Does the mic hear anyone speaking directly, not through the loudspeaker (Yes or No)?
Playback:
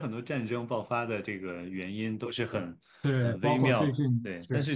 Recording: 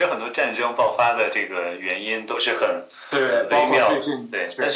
No